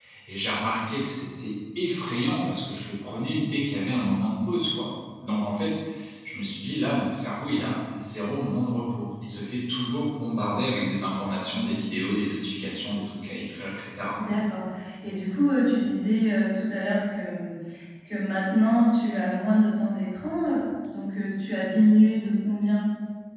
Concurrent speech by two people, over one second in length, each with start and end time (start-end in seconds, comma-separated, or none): none